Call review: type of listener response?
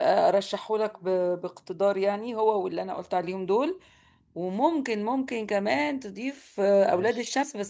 listening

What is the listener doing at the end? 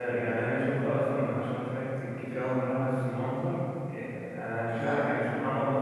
listening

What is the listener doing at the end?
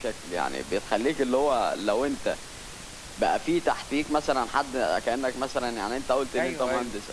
listening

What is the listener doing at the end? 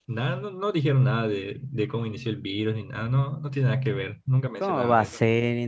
taking over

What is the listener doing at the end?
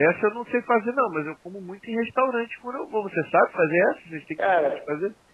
taking over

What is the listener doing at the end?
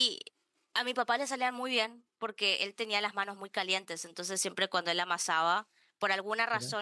listening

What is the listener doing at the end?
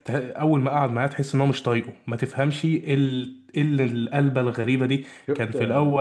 listening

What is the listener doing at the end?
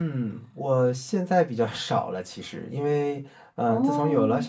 listening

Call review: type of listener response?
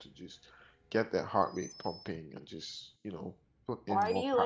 taking over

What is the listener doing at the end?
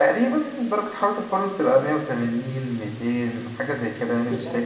taking over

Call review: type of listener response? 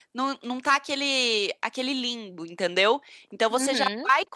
listening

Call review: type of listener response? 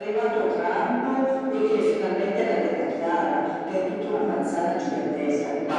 listening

